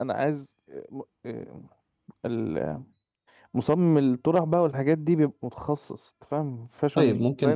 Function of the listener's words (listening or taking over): taking over